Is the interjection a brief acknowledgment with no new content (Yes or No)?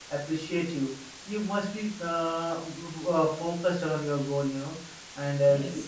Yes